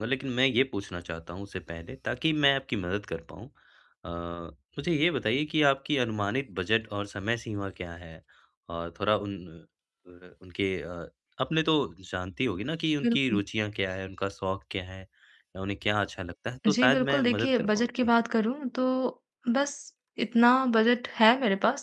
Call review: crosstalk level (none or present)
present